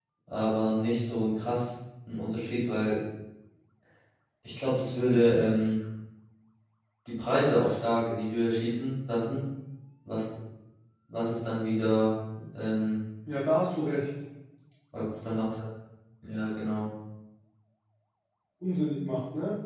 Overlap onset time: none

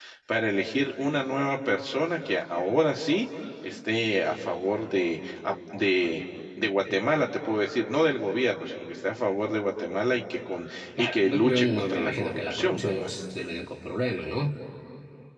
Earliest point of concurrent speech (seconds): 11 s

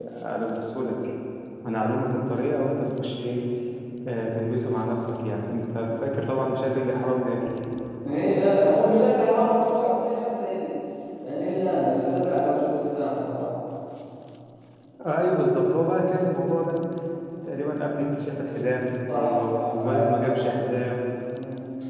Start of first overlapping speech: 19 s

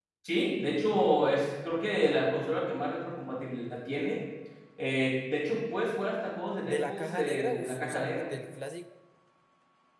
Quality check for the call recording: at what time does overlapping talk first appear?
7 s

